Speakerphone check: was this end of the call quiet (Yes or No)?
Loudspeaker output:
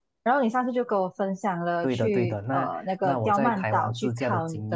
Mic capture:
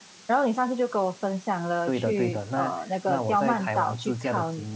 Yes